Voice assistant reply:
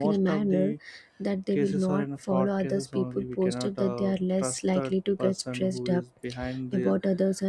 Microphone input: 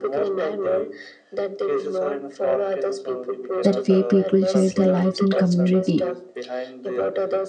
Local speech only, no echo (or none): that way people share their lives and community